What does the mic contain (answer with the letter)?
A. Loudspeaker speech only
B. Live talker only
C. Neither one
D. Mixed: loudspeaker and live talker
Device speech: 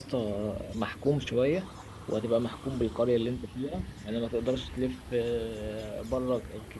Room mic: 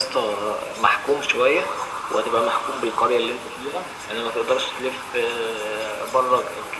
A